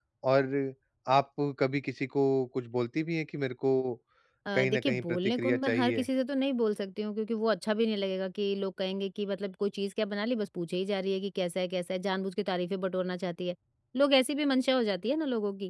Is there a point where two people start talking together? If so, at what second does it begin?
4.5 s

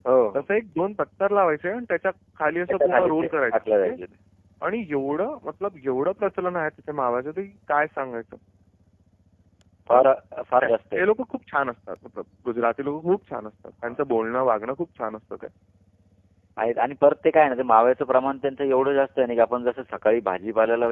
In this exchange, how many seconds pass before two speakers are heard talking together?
2.7 s

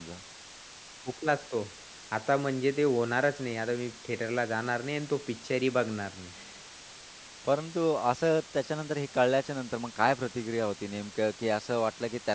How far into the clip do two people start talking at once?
none

